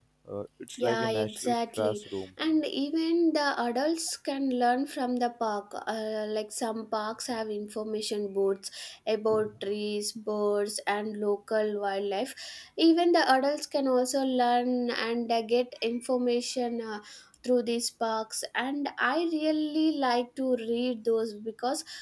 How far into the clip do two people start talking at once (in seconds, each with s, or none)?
0.8 s